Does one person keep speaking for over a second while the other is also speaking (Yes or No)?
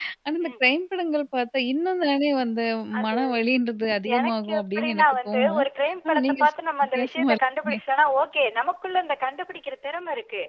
Yes